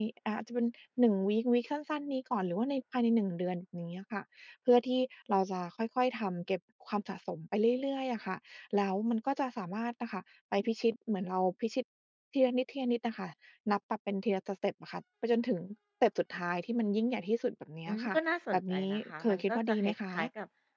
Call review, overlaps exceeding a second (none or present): present